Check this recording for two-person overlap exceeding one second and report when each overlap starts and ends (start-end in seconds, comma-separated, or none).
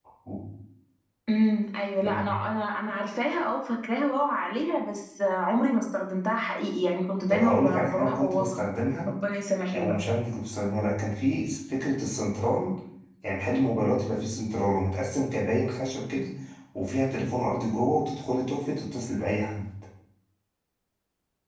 7.3-8.6